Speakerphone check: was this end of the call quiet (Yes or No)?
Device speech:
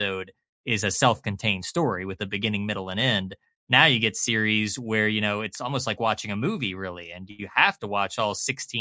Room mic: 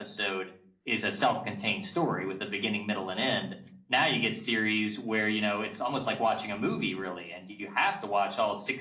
Yes